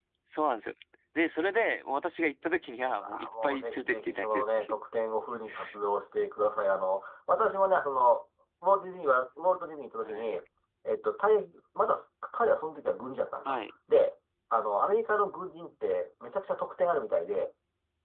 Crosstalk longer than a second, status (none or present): present